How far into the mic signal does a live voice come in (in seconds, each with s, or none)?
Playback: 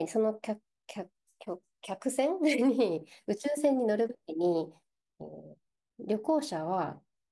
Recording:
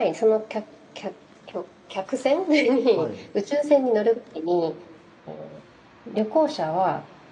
2.9 s